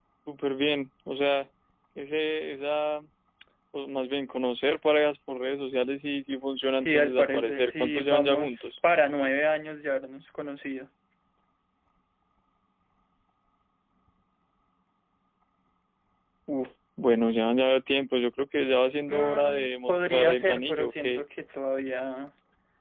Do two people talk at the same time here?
Yes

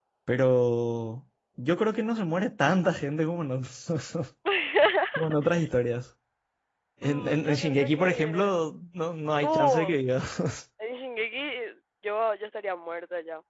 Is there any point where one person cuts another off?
Yes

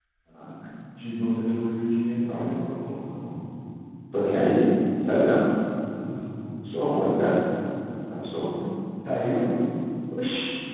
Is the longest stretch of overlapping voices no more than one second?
Yes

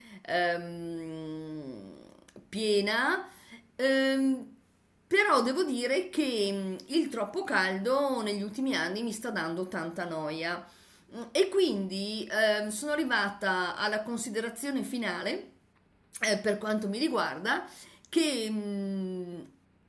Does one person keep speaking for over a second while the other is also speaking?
No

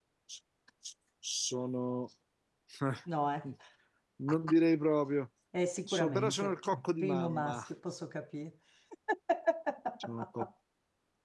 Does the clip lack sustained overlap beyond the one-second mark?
No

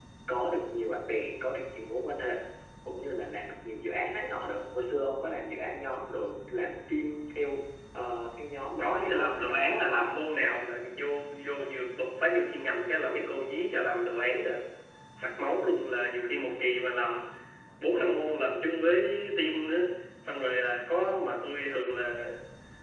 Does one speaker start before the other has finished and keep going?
Yes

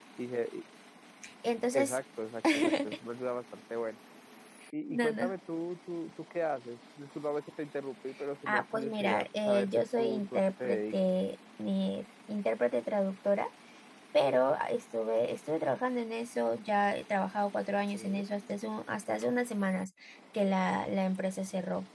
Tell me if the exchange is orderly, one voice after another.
No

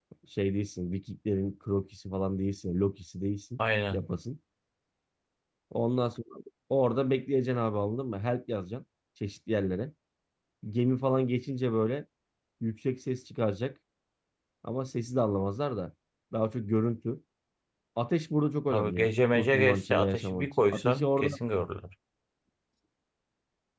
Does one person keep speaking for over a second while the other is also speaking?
Yes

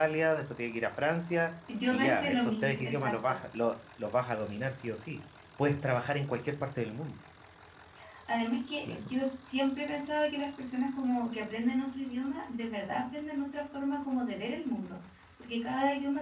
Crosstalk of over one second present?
Yes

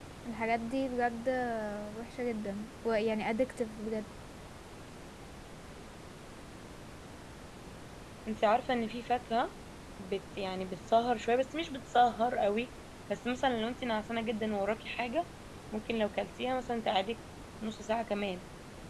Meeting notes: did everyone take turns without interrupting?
Yes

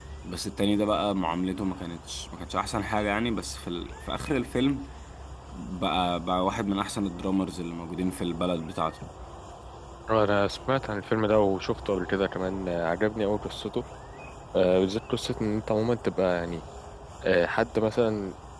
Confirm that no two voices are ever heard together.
Yes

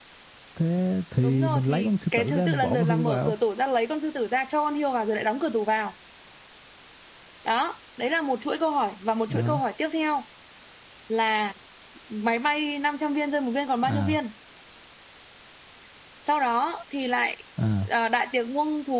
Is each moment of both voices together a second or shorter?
No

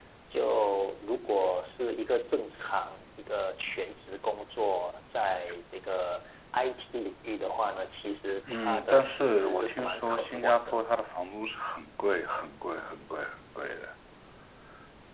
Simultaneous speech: Yes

